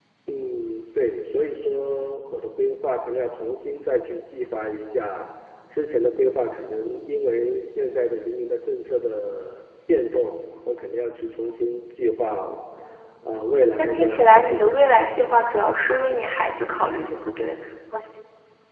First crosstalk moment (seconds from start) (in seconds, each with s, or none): 13.8 s